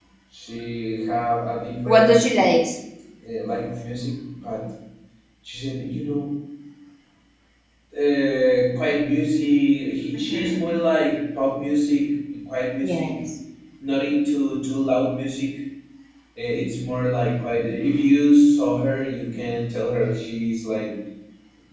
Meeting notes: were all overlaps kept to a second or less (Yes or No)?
Yes